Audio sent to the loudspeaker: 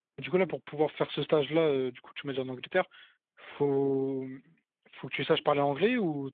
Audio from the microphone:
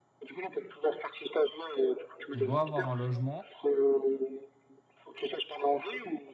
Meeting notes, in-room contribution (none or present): present